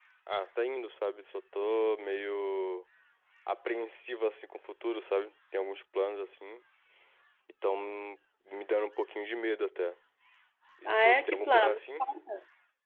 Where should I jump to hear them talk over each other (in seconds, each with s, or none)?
10.9 s